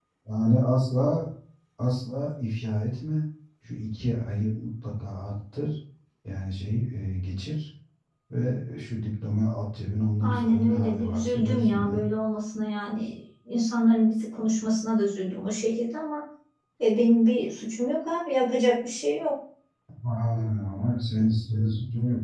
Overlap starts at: 10 s

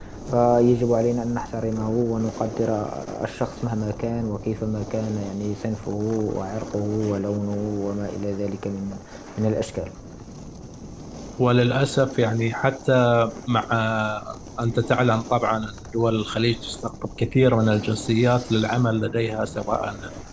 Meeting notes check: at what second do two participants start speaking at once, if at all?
none

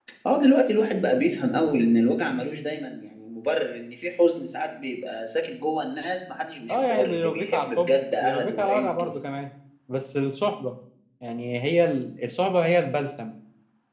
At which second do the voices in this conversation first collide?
7 s

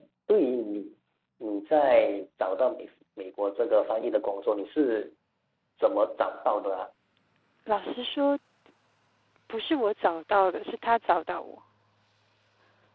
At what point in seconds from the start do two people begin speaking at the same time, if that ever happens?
none

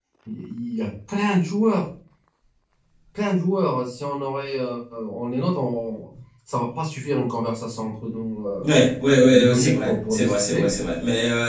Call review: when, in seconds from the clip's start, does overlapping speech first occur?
9 s

